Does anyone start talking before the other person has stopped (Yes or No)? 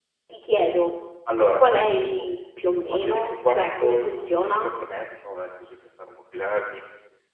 Yes